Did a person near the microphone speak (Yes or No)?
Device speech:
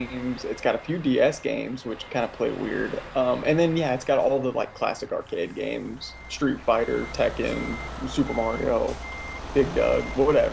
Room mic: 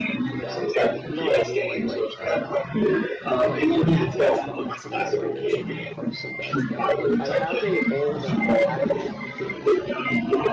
Yes